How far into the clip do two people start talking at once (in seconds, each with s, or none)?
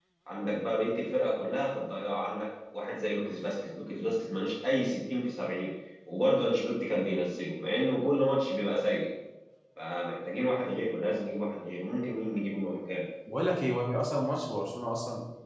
none